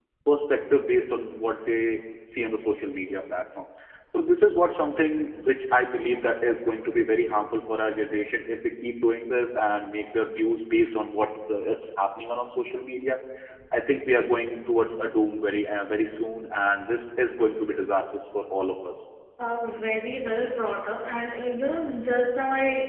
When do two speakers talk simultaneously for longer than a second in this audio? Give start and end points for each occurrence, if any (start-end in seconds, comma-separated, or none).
none